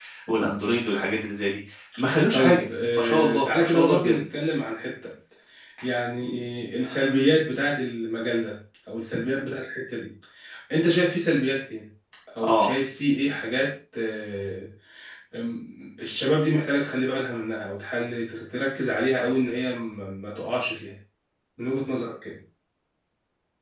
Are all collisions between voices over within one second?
No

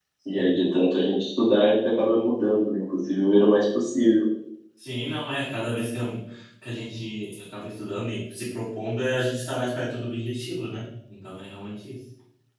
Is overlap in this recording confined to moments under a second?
Yes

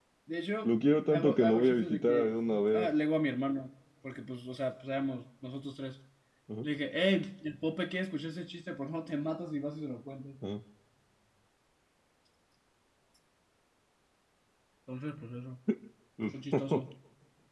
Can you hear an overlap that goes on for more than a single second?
Yes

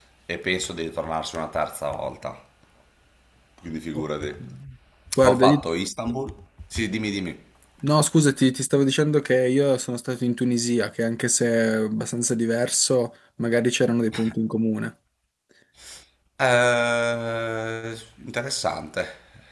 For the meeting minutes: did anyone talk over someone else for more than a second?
No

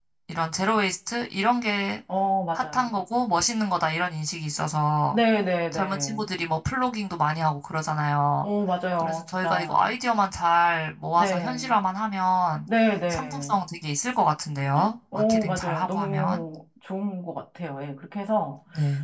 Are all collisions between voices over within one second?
No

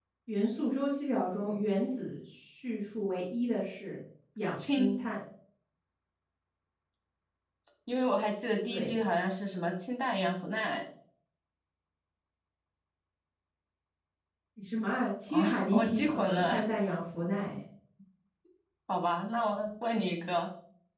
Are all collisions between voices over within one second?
No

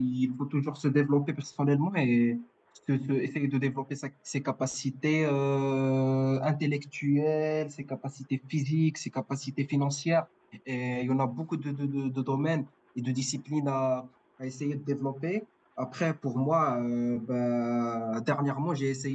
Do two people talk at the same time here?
No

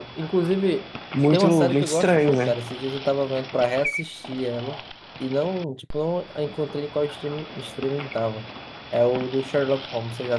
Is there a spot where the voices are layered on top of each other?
Yes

